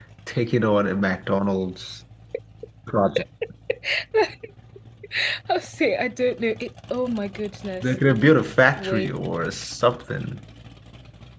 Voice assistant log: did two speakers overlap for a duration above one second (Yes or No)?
No